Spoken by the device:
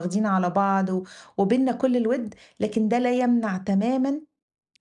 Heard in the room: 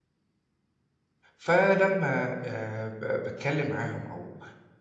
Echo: none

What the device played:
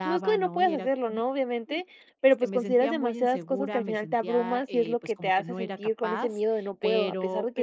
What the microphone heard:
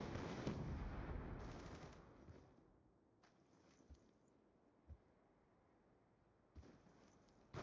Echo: none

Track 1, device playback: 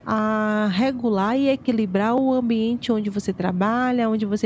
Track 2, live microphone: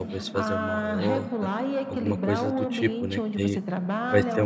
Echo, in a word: present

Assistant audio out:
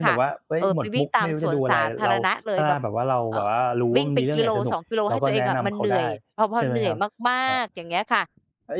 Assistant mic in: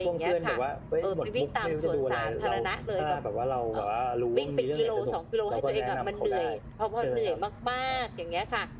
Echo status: present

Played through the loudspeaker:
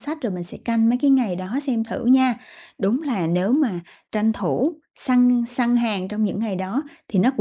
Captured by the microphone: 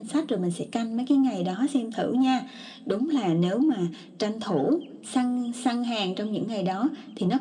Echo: present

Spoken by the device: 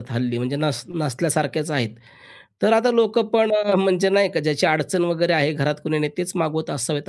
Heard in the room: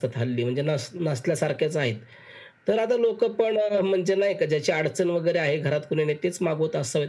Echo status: present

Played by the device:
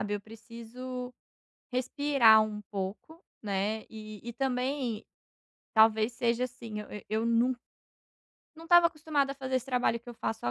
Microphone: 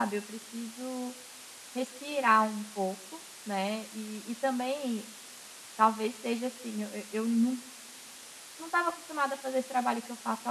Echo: present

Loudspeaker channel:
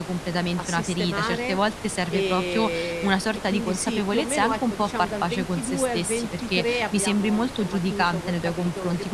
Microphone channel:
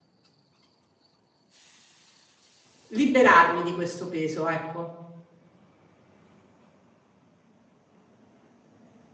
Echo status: none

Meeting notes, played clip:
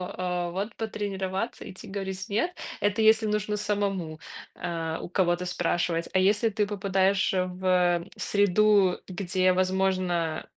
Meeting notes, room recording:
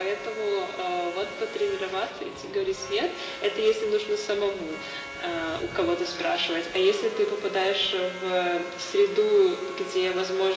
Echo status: present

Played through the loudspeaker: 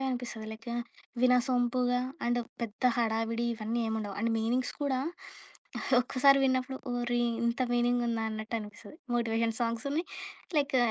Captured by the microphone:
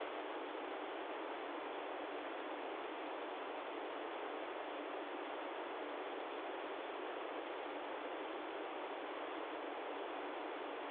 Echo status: none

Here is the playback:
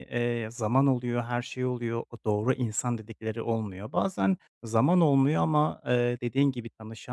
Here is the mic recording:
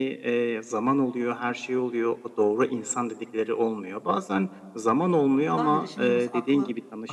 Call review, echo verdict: present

